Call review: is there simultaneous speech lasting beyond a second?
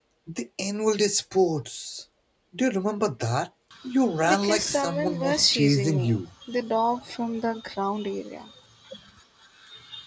Yes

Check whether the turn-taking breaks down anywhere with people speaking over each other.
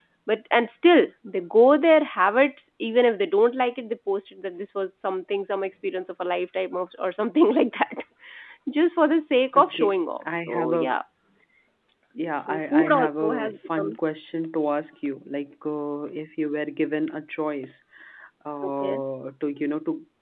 Yes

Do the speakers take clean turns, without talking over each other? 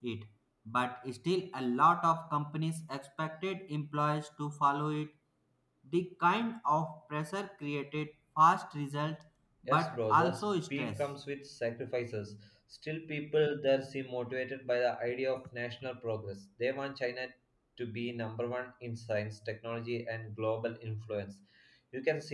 No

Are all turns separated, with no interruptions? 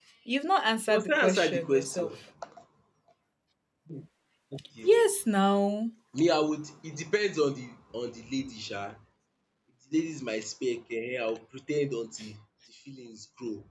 No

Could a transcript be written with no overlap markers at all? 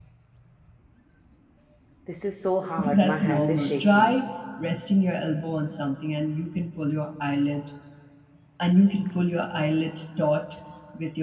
No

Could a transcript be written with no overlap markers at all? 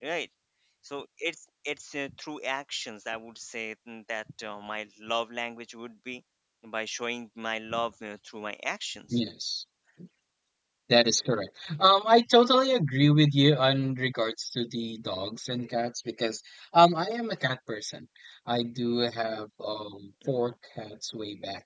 Yes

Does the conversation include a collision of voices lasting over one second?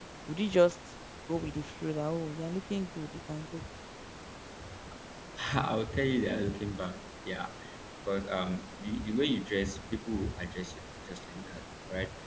No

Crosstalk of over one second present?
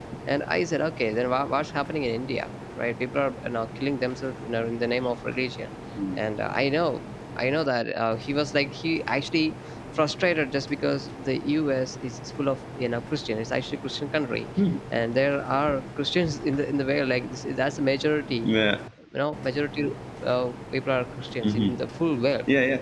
No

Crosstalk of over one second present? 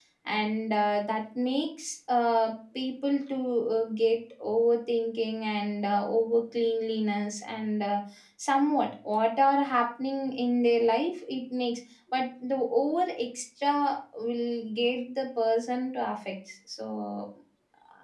No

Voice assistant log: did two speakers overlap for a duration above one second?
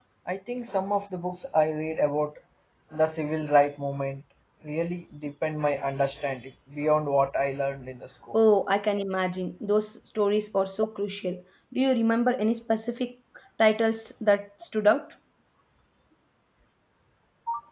No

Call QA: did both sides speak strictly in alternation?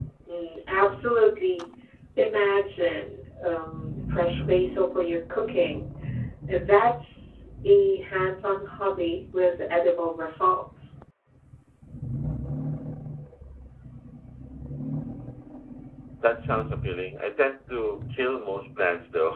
Yes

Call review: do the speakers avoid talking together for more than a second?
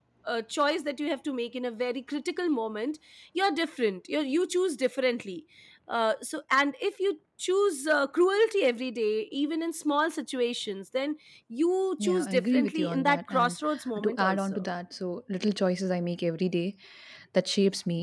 No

